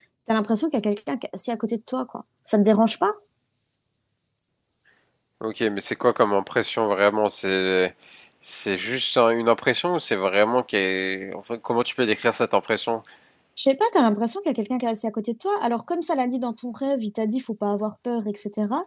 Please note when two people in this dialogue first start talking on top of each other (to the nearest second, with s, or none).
none